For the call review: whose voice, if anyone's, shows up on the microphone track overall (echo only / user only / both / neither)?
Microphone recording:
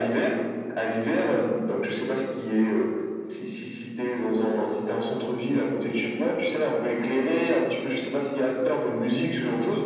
echo only